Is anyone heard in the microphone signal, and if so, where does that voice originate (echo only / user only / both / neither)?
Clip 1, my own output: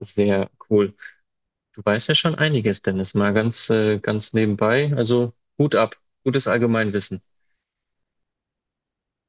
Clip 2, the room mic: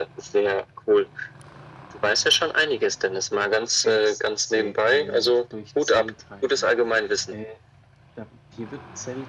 both